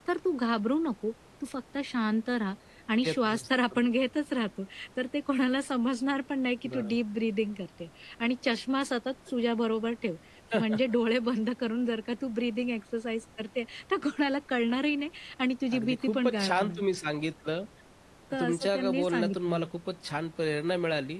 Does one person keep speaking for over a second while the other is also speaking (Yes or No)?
Yes